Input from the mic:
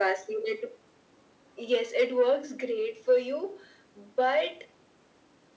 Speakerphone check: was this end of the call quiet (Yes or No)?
Yes